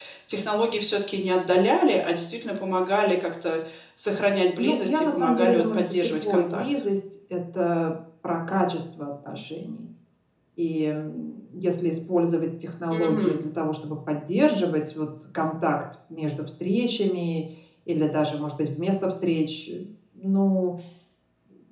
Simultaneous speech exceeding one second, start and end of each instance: 4.6-6.6

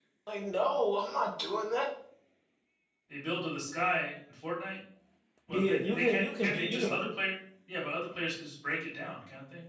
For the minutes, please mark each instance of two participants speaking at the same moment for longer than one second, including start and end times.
5.5-7.0

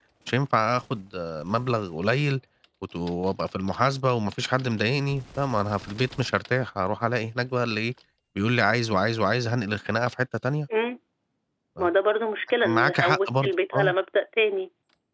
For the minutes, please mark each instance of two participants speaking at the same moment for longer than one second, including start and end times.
12.6-13.9

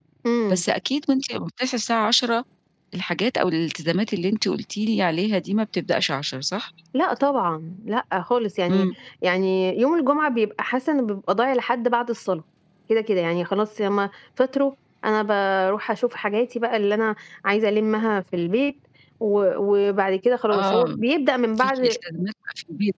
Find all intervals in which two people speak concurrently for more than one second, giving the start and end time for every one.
none

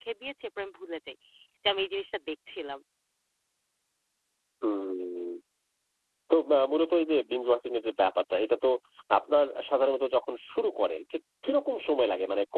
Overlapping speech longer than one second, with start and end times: none

